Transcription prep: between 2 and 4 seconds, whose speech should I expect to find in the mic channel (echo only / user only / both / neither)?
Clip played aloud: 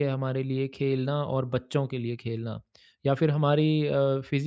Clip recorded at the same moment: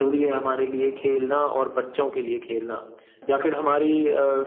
echo only